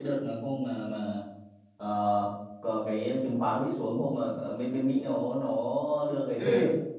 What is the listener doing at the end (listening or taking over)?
listening